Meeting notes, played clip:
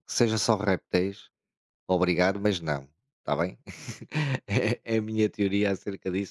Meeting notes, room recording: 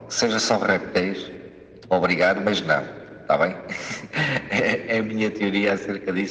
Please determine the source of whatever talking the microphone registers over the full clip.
echo only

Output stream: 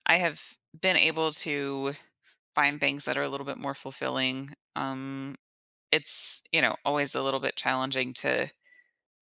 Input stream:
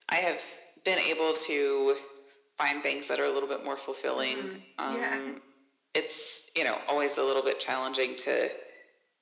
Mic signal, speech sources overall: both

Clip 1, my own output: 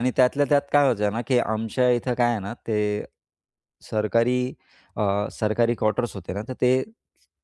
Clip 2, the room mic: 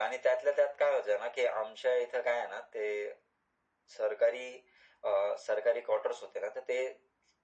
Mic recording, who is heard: echo only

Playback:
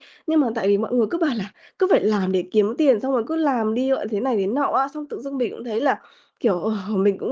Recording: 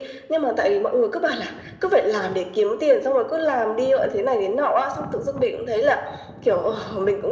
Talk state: echo only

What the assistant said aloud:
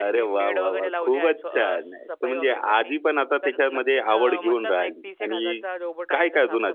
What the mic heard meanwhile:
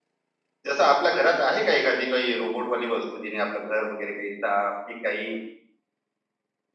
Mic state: user only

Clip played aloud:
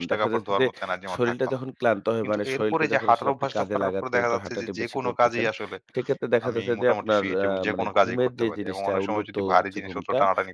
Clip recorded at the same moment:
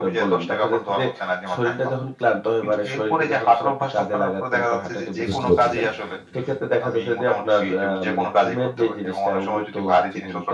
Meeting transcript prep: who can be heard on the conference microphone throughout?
both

